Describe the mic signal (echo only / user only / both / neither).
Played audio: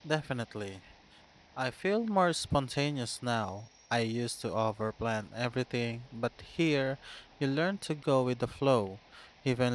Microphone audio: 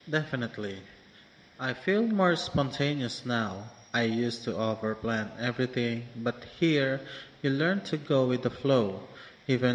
echo only